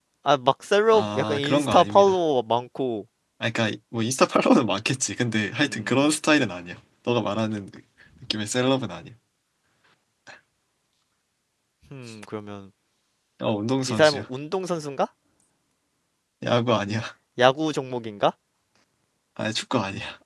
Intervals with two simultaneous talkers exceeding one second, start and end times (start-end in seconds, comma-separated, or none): 0.9-2.1